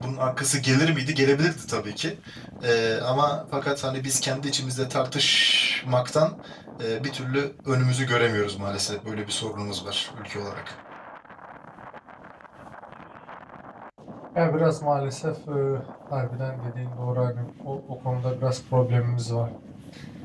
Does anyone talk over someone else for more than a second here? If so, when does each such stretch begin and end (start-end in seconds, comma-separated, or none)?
none